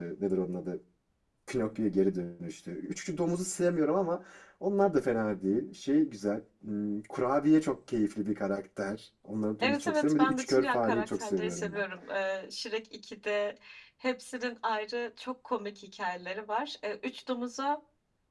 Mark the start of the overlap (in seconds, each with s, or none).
9.6 s